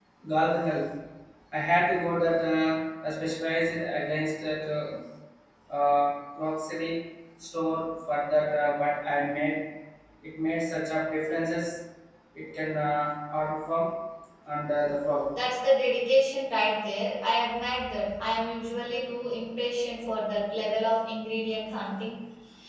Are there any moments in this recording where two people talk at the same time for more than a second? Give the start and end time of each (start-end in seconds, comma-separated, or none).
none